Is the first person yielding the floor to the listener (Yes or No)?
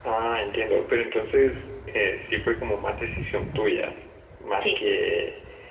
No